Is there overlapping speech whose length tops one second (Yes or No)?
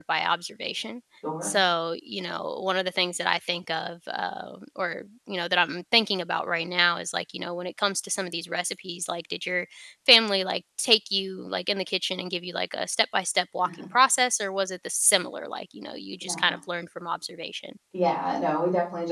No